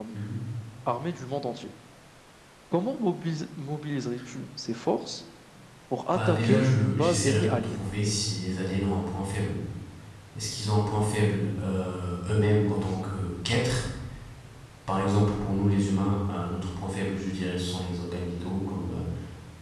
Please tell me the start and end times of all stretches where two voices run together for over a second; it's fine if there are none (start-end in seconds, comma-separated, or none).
6.1-7.8